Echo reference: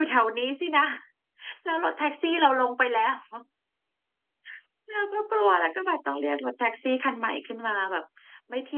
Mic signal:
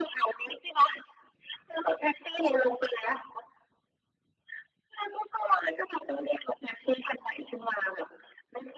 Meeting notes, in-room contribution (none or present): none